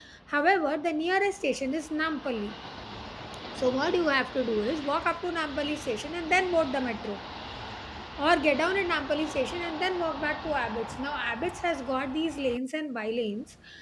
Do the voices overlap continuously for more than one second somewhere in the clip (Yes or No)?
No